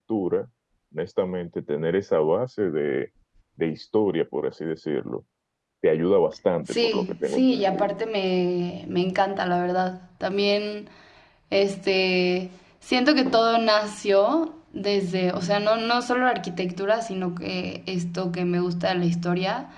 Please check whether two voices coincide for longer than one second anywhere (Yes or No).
Yes